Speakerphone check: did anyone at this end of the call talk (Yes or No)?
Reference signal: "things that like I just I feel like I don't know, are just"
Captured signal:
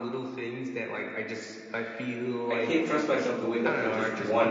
Yes